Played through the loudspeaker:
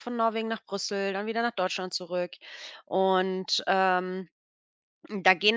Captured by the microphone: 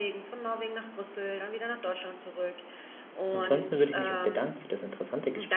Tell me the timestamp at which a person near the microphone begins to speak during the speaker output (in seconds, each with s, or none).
3.3 s